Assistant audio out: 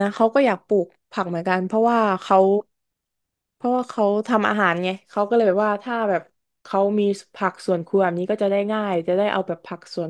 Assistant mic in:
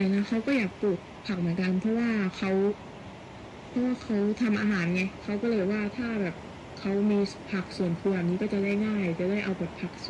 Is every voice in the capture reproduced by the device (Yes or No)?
Yes